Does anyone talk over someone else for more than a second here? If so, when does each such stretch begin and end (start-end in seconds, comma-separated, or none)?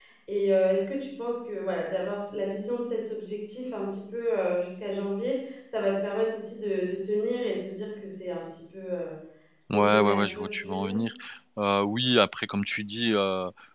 9.7-11.0